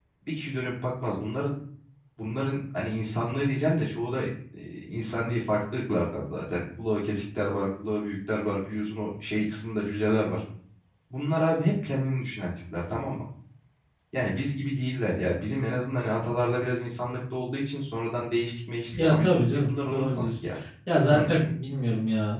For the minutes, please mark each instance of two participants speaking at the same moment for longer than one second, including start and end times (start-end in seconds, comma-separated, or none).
19.0-20.3